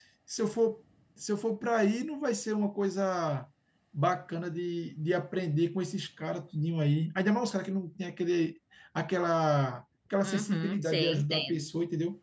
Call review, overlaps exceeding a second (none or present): present